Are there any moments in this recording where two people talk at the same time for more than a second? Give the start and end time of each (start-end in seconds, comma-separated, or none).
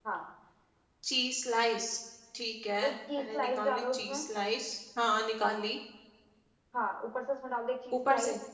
2.9-4.2